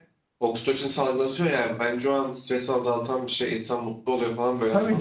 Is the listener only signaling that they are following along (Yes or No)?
No